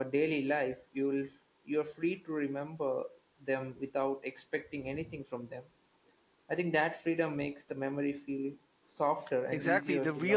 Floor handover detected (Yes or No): Yes